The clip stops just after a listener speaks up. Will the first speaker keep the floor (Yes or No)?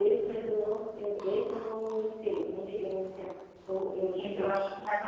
No